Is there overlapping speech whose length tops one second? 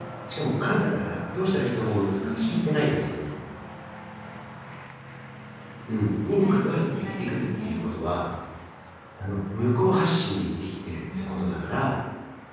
Yes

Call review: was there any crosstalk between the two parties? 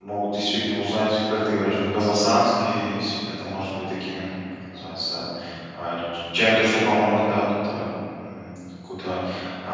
No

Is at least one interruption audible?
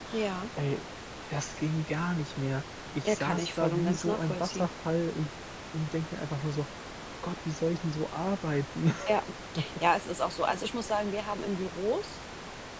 Yes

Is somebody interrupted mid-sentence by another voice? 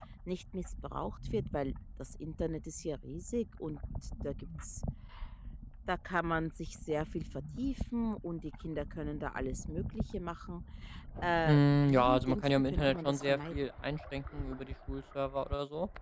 Yes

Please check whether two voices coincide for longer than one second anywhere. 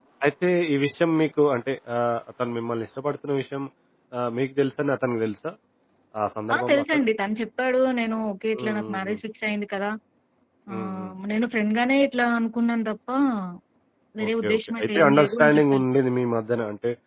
Yes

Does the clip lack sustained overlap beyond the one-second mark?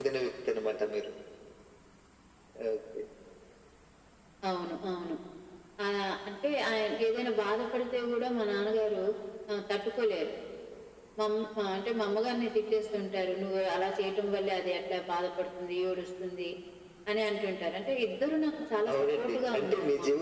No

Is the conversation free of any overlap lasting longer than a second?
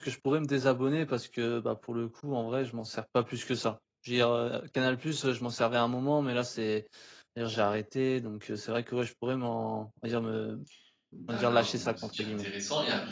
No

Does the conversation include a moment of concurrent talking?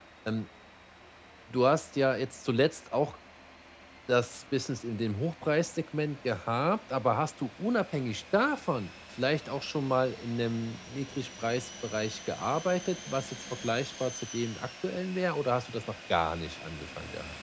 No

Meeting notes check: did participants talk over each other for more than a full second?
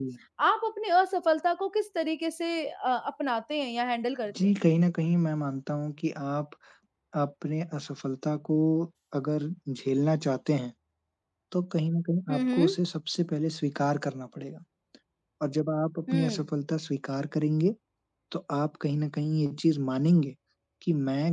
No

